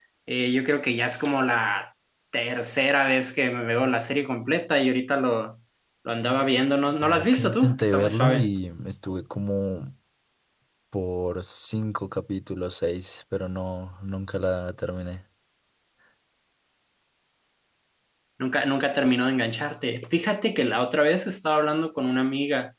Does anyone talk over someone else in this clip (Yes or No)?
Yes